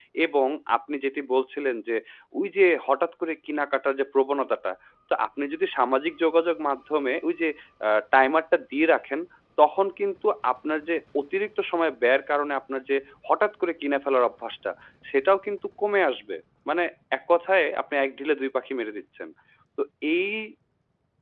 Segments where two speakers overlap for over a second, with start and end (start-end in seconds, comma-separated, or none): none